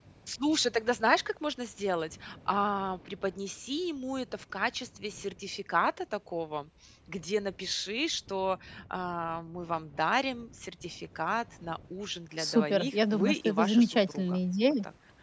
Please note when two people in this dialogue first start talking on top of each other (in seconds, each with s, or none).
12.4 s